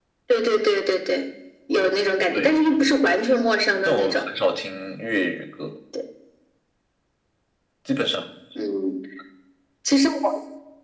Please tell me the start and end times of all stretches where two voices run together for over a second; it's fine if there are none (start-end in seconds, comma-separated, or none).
none